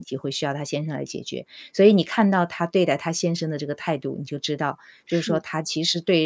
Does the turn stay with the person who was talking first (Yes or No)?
Yes